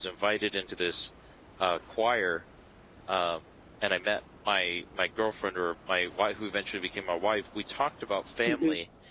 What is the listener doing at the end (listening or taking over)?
listening